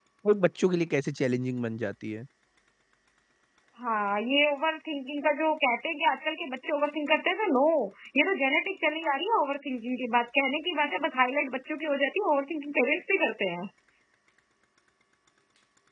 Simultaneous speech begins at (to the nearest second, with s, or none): none